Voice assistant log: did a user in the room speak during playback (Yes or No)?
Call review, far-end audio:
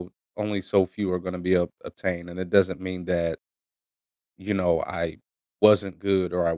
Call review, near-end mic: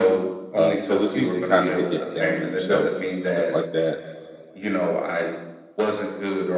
Yes